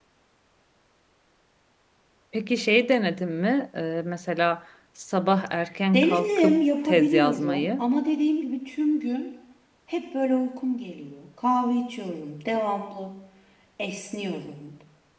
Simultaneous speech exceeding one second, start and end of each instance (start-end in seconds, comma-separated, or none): 5.9-7.8